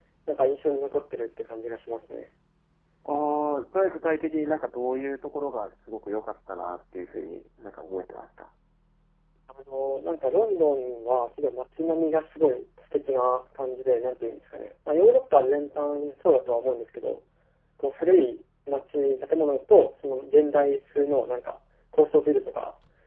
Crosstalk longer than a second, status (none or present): none